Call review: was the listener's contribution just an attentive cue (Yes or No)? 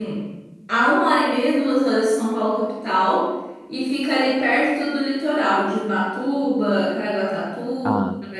Yes